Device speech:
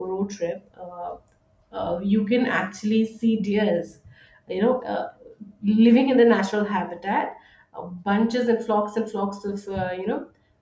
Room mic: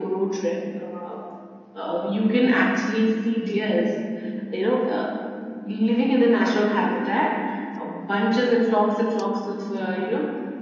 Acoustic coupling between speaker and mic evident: Yes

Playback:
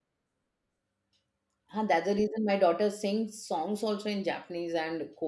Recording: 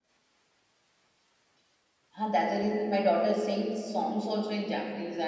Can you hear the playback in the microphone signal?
Yes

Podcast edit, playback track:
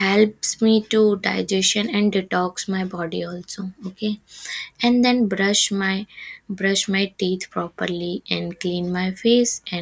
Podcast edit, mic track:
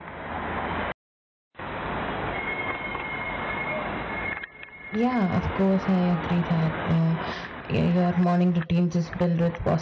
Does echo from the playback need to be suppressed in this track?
No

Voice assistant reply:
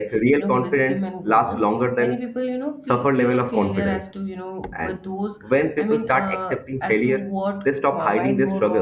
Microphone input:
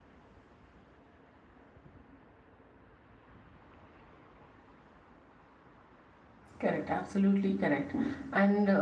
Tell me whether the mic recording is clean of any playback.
Yes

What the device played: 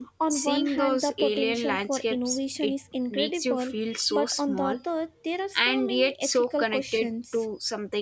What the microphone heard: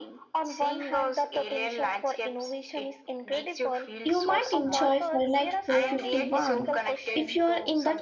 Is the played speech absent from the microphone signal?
No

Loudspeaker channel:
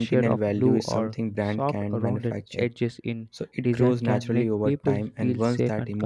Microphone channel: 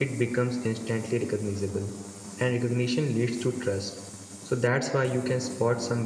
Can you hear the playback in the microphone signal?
No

